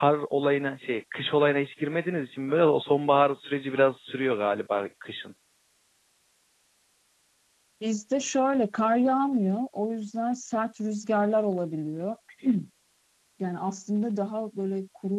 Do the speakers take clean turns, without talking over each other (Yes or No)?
Yes